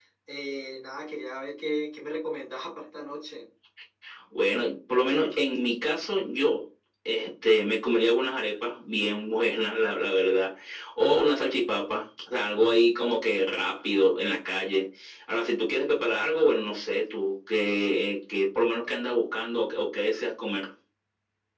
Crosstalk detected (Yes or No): No